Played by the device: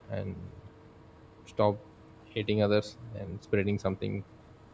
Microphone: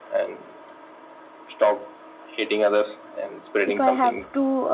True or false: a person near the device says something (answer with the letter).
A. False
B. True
B